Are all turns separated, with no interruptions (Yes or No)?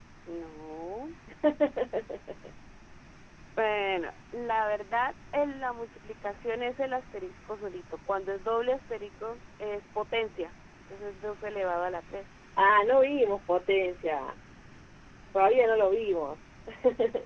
Yes